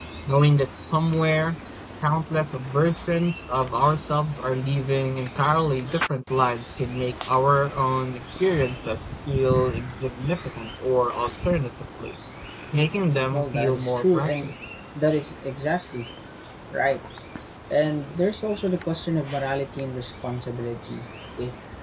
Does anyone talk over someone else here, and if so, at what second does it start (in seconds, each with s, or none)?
13.3 s